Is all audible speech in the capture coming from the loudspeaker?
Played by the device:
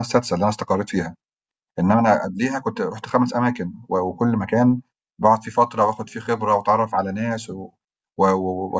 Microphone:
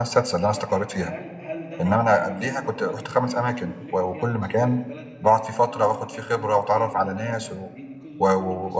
No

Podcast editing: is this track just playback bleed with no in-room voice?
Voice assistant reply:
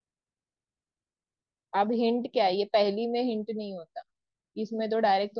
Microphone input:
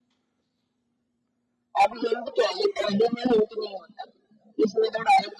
Yes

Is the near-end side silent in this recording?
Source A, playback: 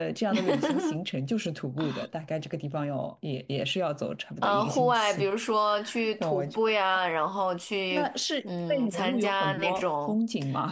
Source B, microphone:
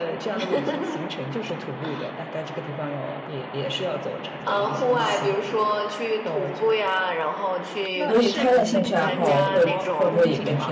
No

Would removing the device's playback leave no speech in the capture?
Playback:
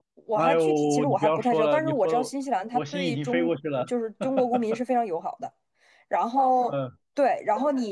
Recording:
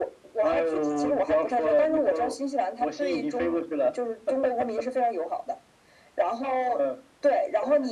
Yes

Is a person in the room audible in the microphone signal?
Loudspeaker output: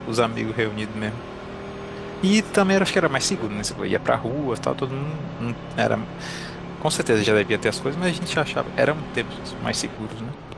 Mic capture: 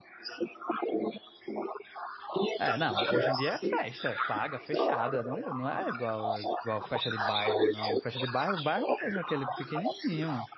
Yes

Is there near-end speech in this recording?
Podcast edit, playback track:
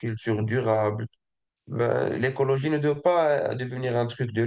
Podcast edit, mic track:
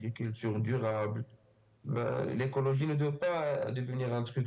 No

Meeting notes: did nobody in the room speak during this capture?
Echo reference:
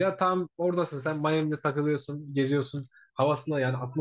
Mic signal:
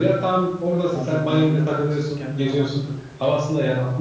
No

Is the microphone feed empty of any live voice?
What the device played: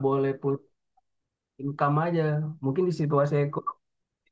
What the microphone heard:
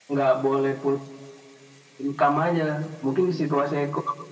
Yes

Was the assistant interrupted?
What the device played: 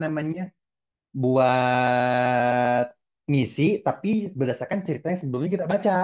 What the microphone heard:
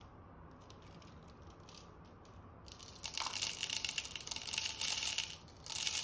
No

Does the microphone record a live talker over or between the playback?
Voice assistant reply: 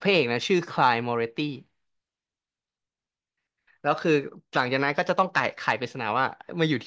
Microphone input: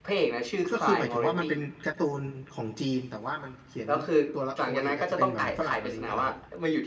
Yes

